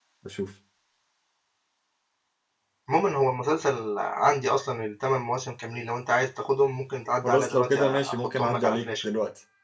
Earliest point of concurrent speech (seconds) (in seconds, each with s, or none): 7.2 s